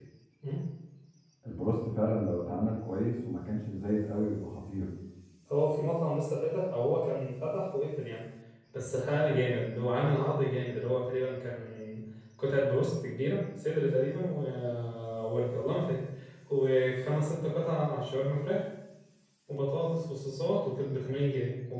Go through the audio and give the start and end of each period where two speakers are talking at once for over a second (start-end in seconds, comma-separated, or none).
none